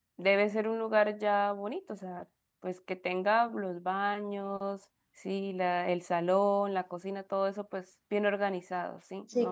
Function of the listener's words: taking over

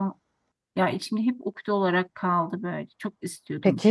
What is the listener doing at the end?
taking over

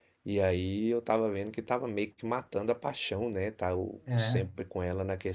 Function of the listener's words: listening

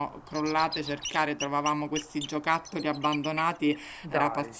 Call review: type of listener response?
listening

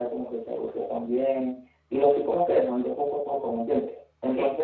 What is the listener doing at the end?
listening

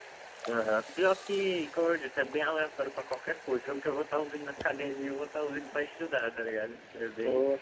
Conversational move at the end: listening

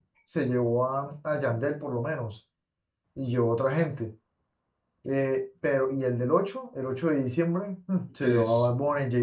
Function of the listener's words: listening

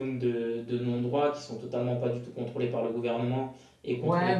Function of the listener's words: taking over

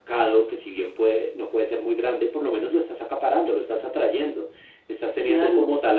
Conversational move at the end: listening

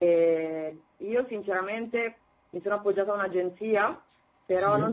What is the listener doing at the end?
listening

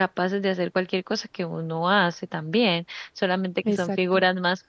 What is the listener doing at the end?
listening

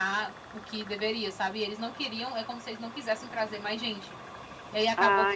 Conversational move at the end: listening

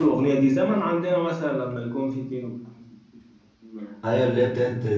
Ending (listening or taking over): taking over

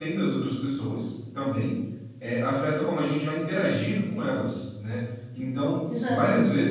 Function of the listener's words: listening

